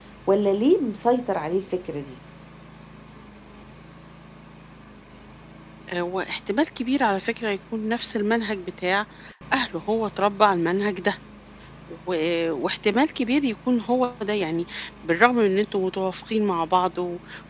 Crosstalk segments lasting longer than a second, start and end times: none

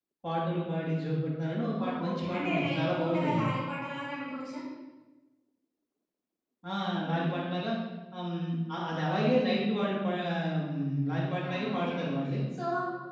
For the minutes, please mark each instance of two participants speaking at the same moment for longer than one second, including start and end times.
1.6-3.5

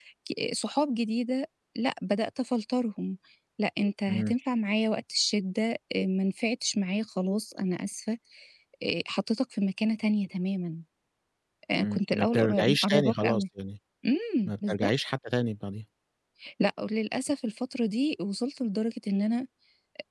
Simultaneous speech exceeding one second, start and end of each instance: 11.8-13.4

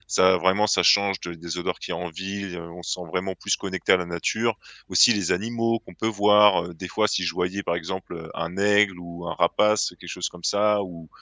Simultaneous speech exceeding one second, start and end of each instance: none

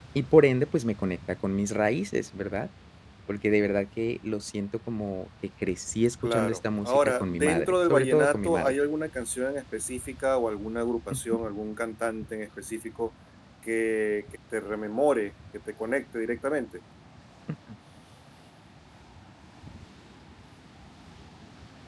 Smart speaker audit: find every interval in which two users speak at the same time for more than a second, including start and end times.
6.2-8.8

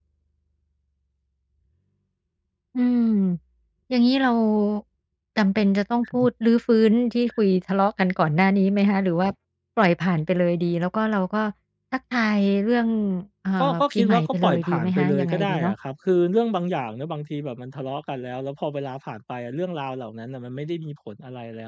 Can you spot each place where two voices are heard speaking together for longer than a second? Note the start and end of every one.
13.6-15.7

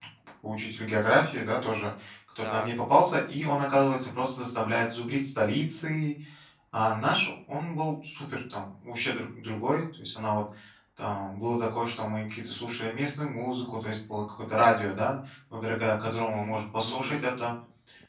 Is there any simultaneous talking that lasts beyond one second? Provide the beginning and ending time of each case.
16.1-17.3

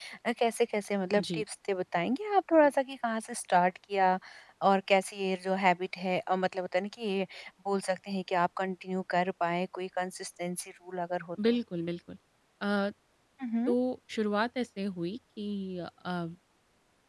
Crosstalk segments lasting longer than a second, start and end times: none

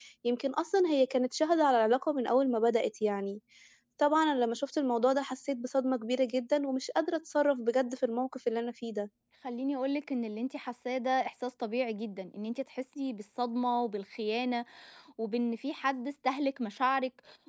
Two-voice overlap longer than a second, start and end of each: none

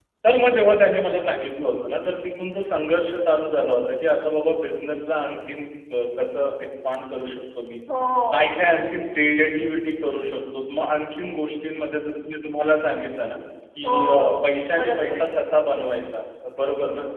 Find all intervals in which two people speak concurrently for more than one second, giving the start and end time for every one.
13.8-15.2

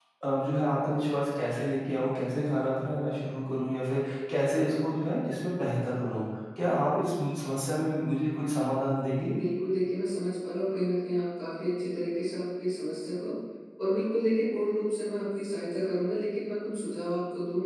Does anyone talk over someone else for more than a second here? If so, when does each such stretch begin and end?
none

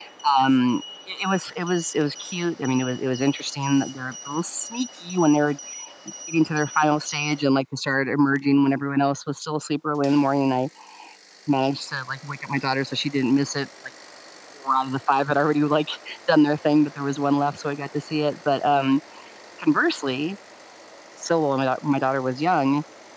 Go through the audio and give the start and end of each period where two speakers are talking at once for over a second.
none

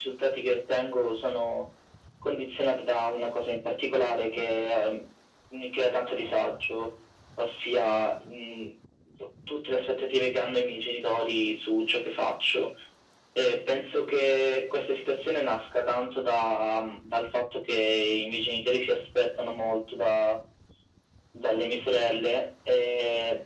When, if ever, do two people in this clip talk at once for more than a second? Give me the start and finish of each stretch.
none

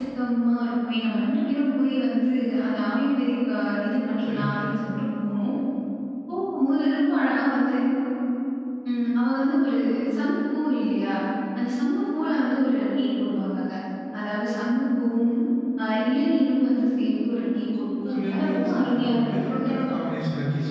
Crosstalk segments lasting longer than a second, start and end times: 17.5-19.6

